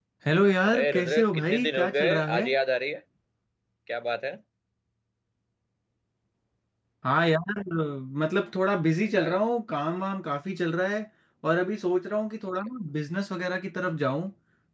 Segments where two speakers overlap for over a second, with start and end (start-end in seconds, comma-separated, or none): 0.7-2.5